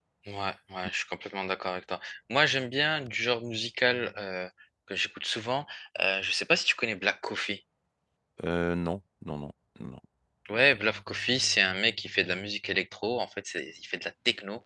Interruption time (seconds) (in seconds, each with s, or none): none